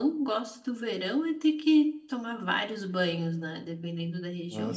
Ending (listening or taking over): listening